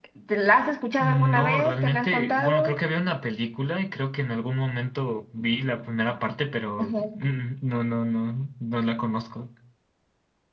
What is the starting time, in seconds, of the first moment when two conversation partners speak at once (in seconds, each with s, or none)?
1.0 s